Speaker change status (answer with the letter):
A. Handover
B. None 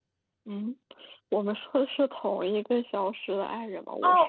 A